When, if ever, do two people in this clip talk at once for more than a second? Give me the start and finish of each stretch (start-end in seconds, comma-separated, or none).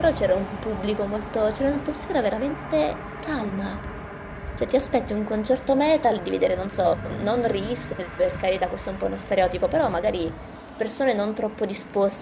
none